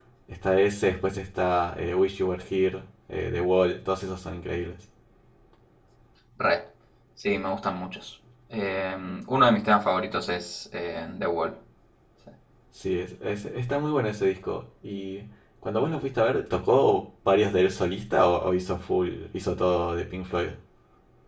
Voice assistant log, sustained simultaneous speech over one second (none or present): none